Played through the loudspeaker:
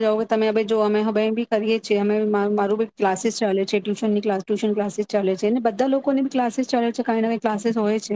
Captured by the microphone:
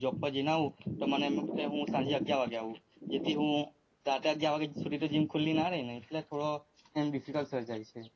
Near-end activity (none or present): present